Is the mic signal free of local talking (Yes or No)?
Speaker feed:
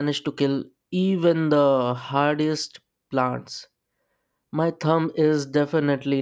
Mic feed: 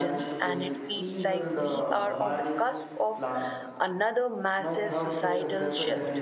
No